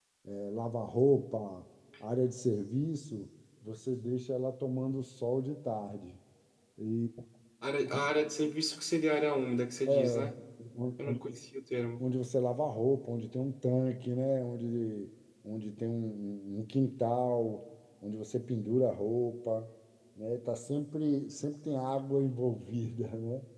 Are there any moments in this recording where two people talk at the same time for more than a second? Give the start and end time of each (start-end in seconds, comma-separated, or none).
none